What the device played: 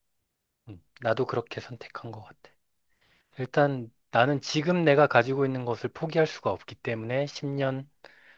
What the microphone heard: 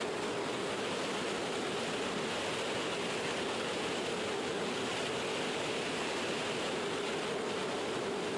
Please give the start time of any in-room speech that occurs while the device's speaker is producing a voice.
none

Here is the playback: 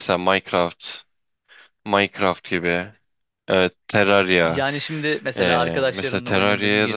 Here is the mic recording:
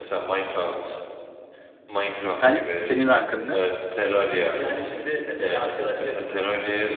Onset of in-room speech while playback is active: 2.3 s

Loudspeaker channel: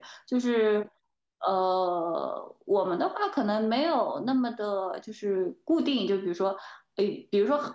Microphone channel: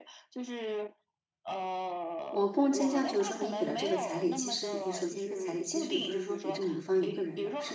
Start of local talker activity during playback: 2.3 s

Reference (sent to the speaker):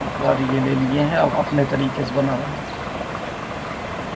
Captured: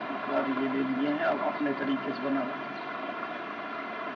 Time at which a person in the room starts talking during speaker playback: none

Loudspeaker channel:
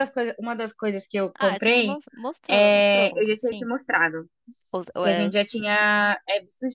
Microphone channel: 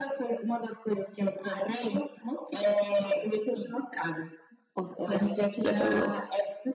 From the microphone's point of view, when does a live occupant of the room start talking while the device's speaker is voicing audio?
5.6 s

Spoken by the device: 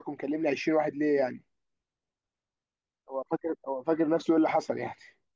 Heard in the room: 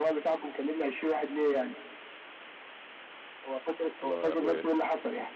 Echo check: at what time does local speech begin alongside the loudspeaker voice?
4.0 s

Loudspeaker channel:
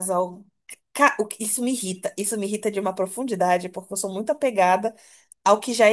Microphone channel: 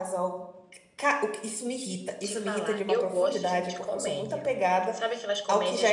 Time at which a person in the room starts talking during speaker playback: 2.2 s

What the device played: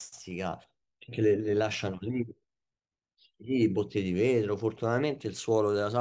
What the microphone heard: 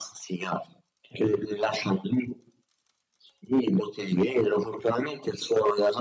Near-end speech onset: none

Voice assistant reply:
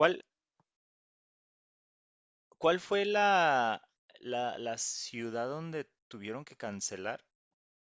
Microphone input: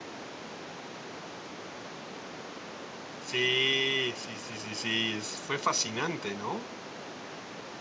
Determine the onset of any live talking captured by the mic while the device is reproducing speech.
3.2 s

